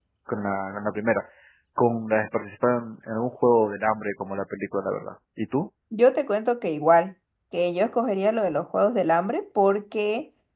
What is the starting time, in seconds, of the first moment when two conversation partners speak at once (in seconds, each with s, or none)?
none